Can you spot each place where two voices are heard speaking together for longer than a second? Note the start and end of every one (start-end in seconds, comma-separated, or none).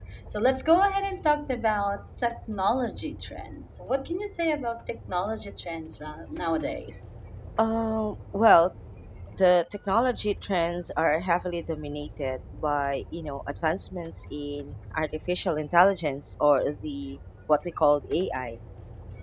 none